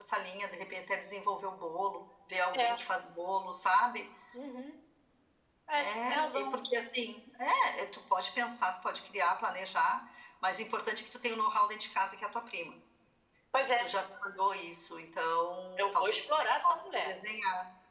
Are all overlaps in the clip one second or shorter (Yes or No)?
No